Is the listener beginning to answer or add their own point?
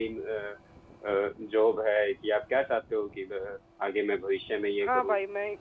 Yes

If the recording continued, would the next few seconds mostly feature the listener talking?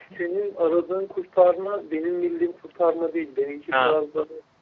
No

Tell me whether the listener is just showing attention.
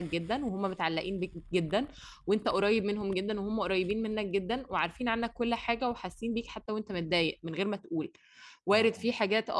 Yes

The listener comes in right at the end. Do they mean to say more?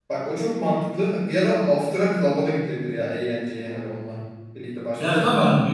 Yes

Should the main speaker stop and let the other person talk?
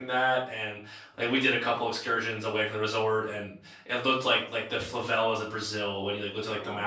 No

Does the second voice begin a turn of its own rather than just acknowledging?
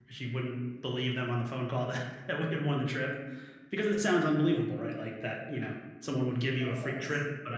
No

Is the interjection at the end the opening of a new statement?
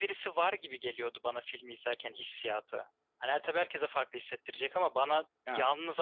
No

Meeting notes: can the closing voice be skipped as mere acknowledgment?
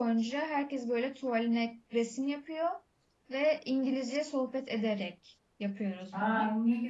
No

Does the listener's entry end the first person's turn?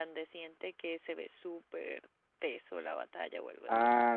Yes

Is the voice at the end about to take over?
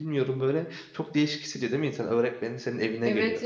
Yes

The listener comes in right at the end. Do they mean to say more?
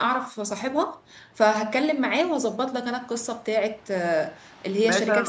Yes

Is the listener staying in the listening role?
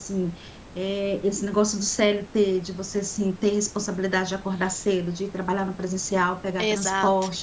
Yes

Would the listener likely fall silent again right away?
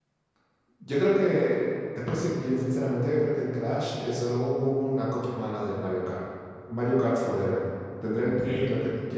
Yes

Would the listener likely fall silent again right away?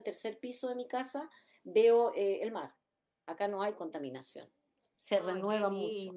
No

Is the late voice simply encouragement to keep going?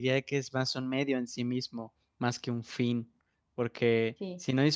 Yes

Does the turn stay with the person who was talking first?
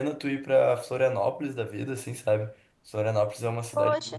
Yes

